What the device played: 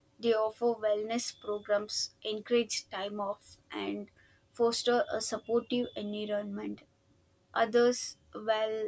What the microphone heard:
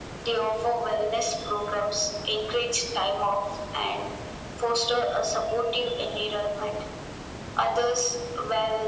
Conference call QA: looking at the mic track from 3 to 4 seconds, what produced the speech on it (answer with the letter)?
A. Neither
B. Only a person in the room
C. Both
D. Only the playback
D